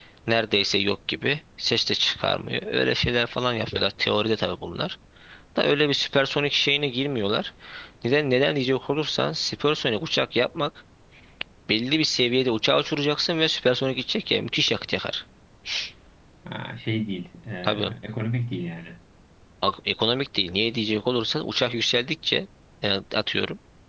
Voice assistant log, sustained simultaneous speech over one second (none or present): none